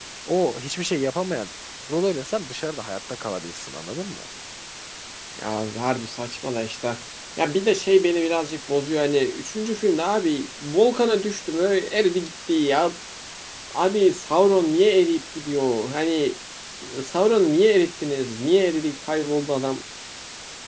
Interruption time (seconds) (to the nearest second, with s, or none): none